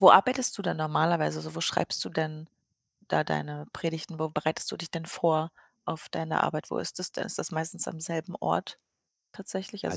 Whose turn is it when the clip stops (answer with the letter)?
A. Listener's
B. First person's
A